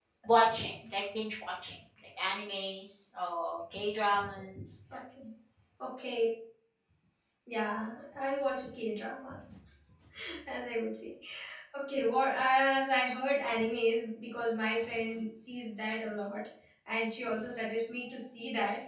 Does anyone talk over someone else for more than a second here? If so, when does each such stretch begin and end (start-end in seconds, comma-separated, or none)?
none